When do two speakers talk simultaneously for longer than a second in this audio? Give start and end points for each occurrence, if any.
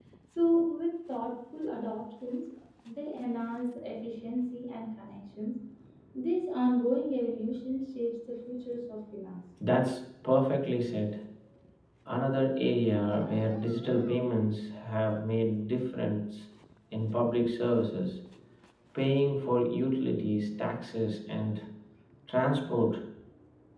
none

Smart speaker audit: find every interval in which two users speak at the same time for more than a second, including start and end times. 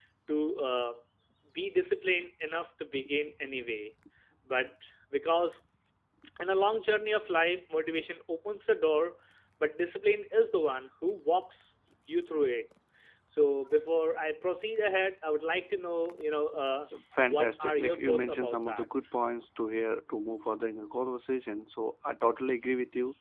17.3-18.9

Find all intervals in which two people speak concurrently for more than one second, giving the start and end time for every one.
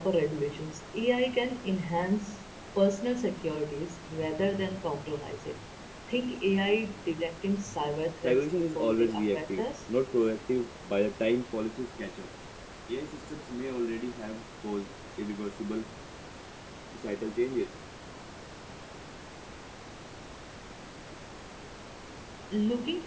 8.2-9.6

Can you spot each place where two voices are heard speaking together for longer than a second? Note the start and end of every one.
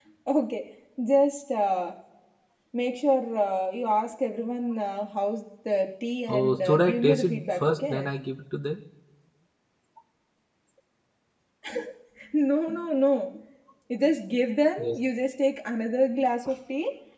6.3-8.1

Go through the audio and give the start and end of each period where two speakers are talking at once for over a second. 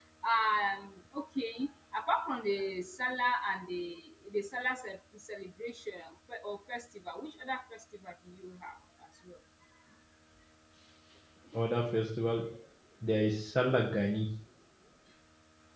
none

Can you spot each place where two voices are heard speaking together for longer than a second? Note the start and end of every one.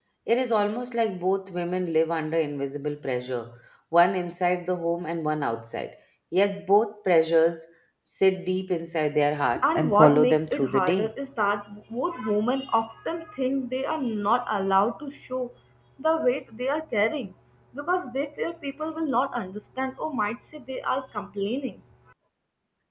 9.6-11.1

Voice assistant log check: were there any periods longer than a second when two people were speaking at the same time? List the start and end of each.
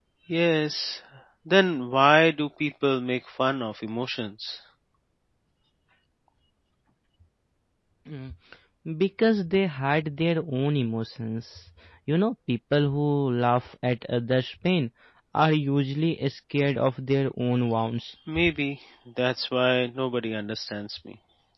none

